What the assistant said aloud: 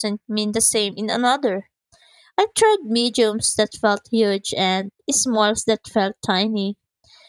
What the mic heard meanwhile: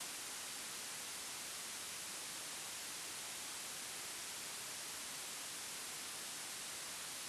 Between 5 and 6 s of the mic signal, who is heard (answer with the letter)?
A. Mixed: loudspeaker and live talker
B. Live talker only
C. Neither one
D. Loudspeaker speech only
C